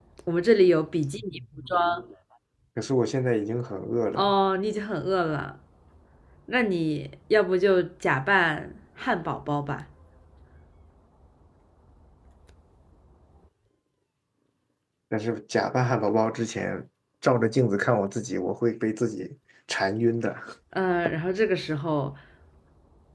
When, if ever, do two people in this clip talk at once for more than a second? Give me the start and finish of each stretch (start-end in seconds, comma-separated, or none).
none